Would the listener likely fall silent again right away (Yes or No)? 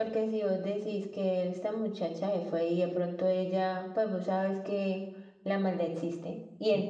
Yes